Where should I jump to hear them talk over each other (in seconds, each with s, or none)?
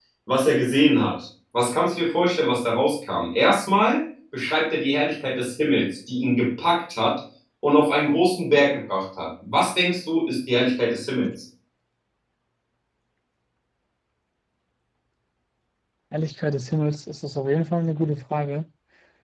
none